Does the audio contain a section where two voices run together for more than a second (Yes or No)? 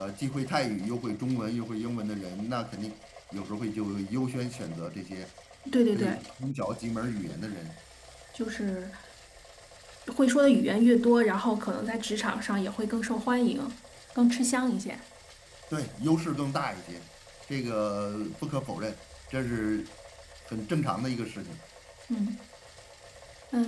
No